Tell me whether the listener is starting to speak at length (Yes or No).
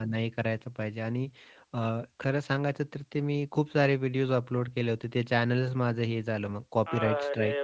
Yes